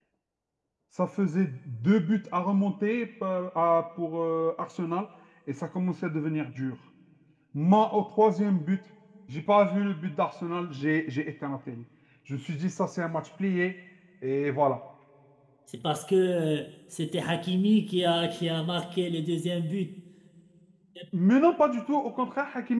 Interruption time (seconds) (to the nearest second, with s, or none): none